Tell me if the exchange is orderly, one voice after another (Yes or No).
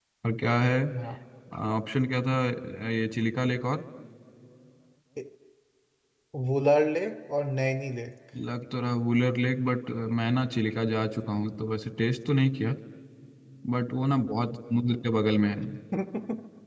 Yes